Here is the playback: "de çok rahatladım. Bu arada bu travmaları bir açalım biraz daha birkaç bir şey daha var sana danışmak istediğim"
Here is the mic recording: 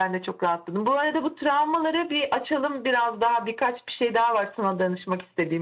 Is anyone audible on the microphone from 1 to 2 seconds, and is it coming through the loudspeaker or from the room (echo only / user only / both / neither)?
echo only